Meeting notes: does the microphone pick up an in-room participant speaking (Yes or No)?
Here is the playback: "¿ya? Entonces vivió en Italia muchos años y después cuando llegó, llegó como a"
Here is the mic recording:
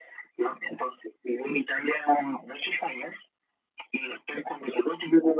No